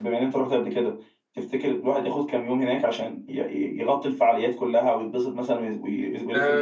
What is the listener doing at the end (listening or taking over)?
taking over